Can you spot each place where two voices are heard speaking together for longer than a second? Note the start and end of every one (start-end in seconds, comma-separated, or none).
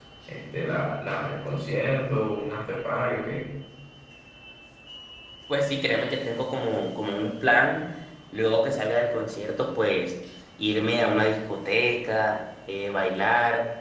none